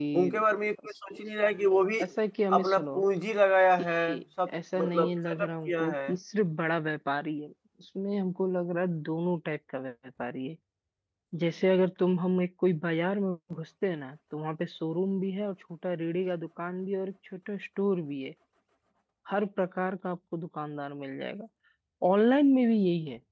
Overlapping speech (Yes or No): Yes